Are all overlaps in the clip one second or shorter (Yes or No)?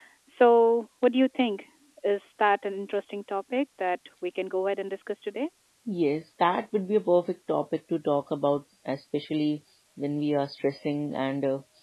Yes